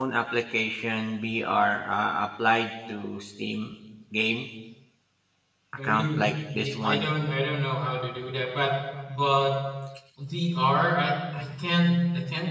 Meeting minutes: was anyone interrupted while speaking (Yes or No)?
Yes